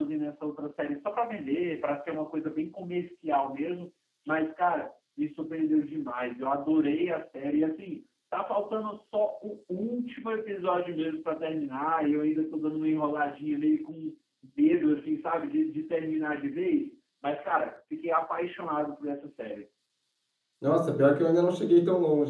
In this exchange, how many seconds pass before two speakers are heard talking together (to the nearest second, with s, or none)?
none